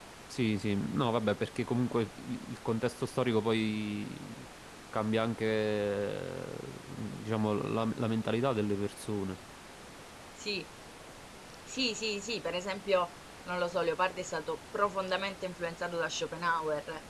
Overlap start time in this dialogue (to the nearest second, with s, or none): none